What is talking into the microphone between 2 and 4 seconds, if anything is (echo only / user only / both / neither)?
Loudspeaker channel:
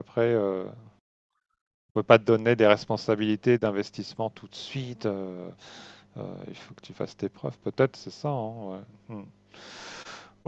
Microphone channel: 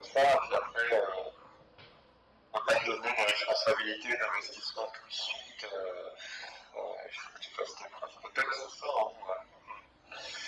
echo only